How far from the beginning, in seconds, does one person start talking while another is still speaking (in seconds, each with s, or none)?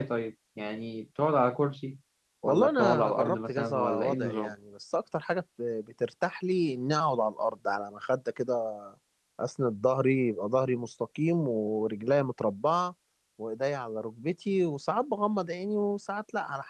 2.5 s